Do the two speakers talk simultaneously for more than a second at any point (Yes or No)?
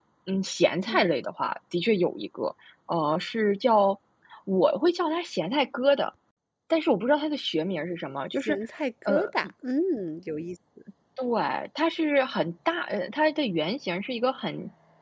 No